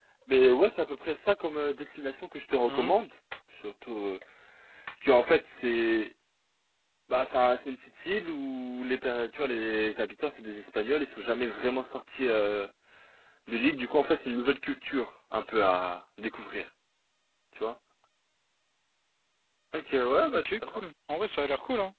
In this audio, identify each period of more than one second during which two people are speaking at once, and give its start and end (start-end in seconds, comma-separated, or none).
none